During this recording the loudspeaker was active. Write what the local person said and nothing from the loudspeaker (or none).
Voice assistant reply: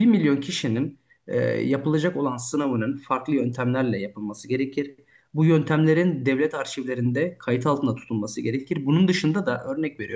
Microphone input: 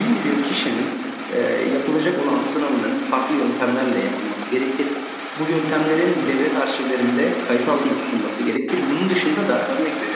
none